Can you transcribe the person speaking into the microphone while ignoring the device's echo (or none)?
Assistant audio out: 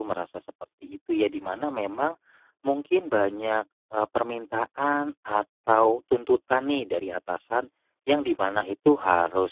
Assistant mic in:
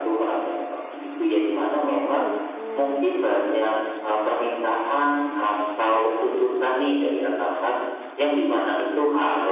betul betul.